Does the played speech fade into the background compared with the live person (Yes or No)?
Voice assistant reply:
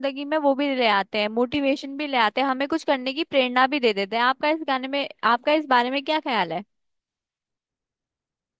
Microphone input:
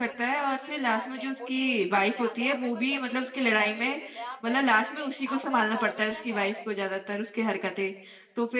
Yes